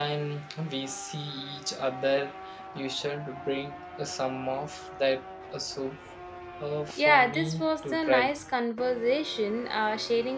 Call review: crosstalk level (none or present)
present